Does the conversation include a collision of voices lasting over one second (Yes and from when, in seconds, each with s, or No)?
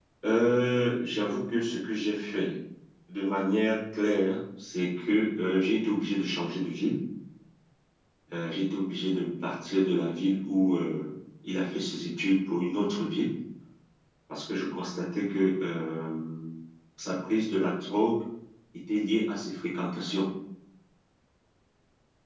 No